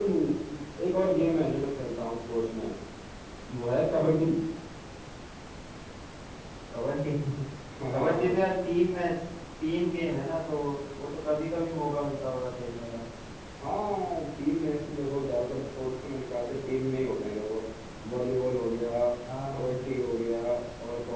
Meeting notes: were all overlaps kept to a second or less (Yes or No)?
Yes